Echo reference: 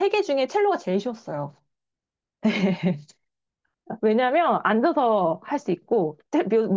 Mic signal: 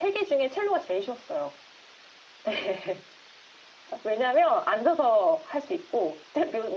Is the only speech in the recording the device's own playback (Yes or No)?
Yes